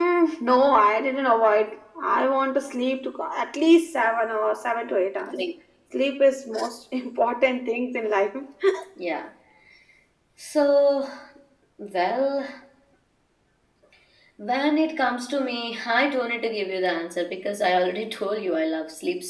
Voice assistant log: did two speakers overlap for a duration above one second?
No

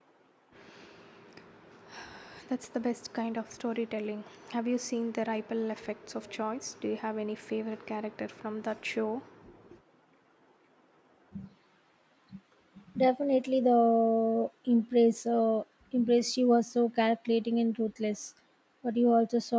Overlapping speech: No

